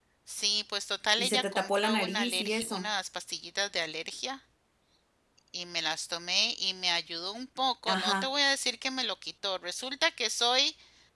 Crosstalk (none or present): present